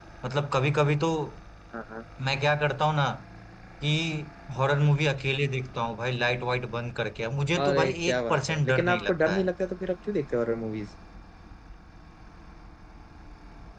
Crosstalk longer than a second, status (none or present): present